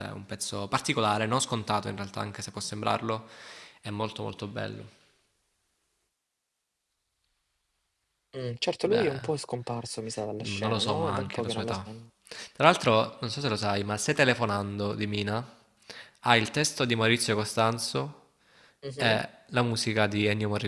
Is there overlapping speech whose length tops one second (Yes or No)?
Yes